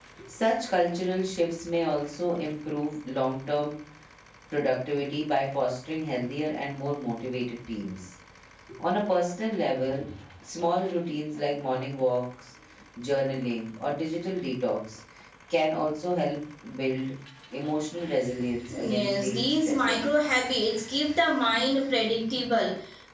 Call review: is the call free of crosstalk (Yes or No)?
No